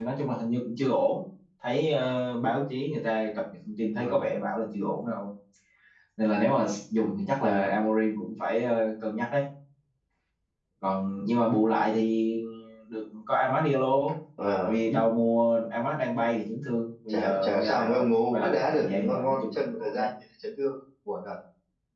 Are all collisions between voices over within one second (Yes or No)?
No